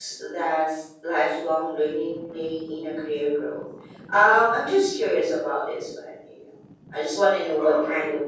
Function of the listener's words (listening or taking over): listening